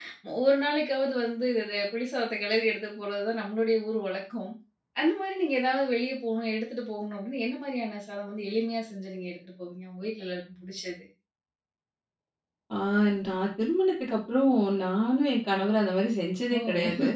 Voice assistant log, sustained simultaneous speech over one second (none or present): none